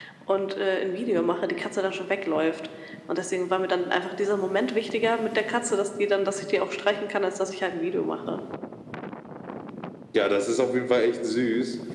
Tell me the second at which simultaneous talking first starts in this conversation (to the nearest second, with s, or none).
none